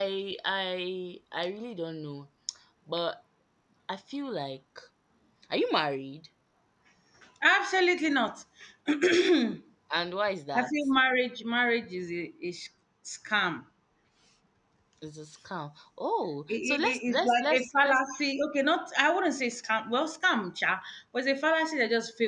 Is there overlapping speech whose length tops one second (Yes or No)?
Yes